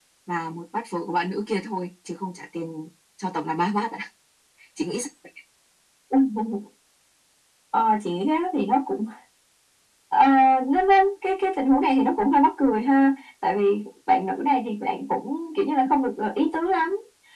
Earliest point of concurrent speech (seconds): none

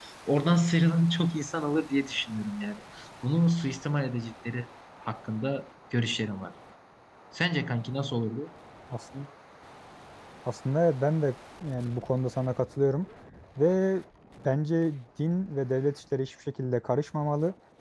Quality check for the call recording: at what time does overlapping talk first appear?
none

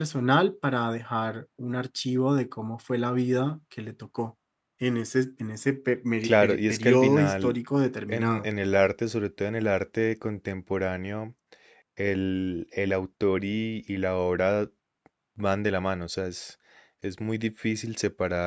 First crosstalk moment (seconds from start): 6.2 s

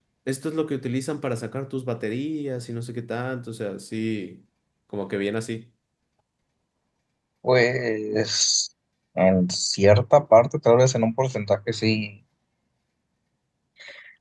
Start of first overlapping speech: none

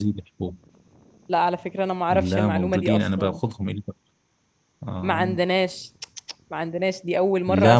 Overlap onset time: 2.1 s

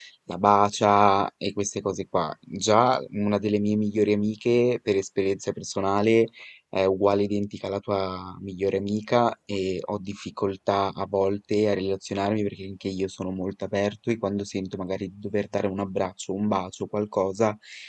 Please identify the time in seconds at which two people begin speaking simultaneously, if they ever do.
none

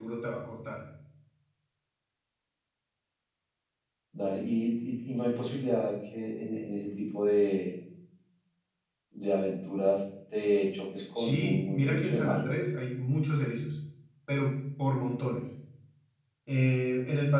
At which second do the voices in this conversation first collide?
11.2 s

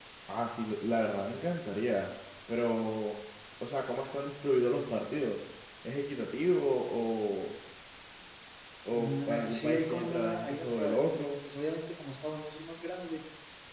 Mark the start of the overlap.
8.9 s

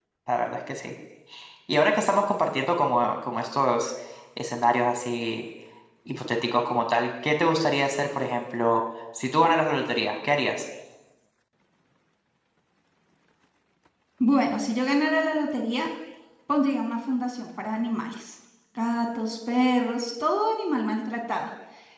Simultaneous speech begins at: none

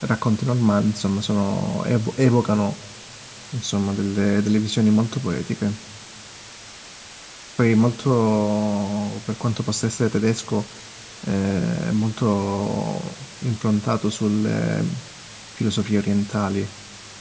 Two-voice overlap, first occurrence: none

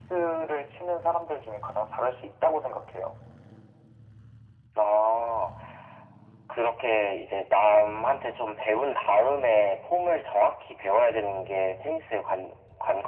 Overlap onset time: none

